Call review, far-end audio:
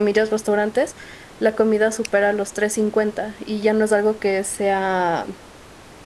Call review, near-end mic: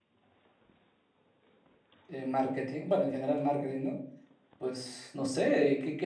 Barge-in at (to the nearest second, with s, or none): 2 s